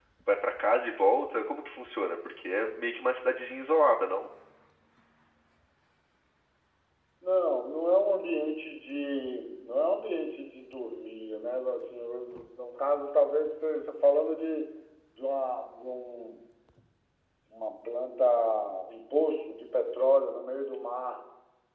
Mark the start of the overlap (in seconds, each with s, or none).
none